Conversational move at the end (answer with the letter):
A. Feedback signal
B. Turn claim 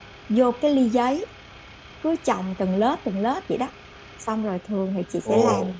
A